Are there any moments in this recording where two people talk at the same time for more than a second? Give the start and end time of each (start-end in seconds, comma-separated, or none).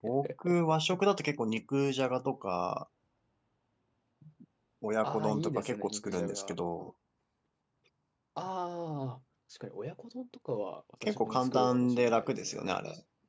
5.0-6.5, 11.0-12.5